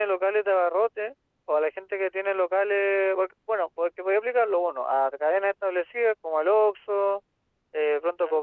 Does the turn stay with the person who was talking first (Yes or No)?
Yes